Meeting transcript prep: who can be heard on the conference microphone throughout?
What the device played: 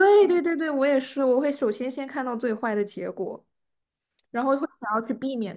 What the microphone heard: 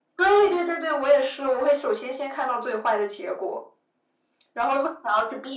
echo only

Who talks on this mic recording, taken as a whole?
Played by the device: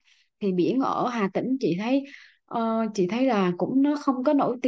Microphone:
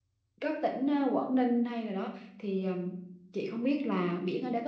user only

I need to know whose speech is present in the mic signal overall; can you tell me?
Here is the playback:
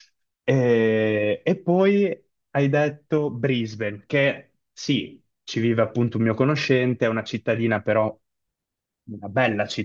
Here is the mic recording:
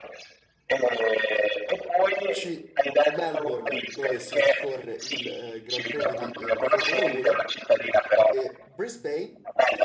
both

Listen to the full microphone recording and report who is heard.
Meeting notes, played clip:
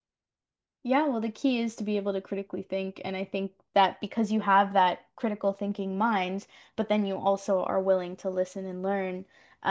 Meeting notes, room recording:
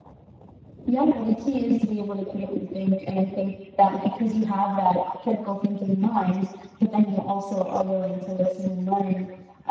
echo only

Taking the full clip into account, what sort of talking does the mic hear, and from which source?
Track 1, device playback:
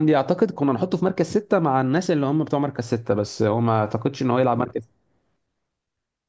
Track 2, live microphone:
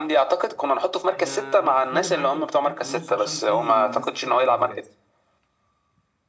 both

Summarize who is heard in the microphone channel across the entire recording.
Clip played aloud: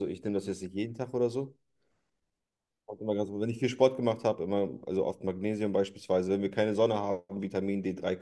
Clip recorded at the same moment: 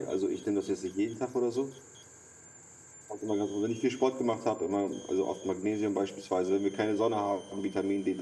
echo only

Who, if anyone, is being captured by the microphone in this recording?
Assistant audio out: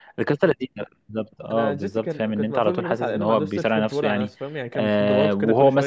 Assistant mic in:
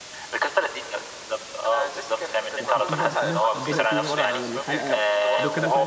both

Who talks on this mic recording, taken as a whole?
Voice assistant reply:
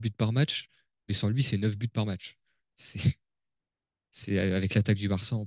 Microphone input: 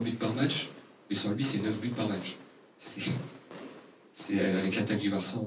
echo only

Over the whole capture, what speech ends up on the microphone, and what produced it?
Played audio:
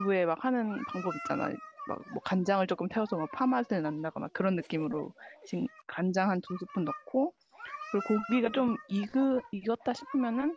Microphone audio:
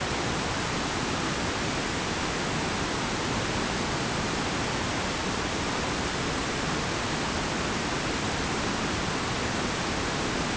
neither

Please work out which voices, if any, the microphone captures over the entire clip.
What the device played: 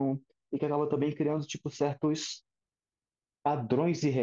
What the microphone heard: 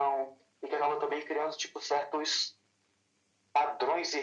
echo only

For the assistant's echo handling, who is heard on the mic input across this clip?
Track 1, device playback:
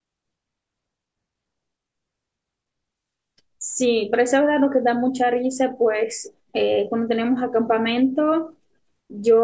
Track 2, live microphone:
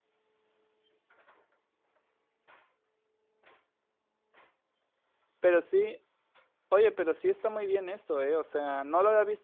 user only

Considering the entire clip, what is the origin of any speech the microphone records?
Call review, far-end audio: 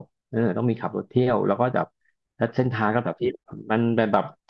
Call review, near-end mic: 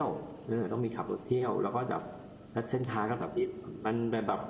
echo only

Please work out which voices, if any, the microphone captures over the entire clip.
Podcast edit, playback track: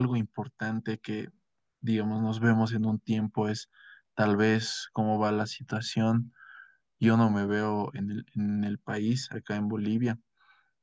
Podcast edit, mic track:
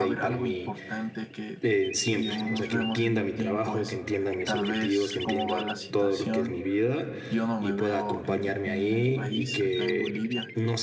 both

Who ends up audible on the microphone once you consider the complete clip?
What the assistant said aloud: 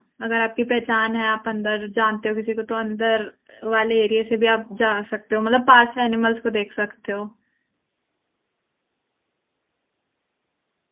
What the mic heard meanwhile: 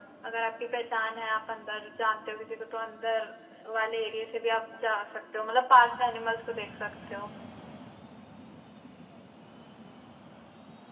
echo only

